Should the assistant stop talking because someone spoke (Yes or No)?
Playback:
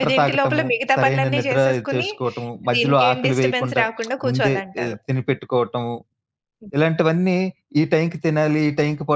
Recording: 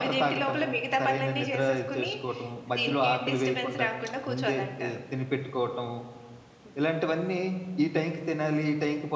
No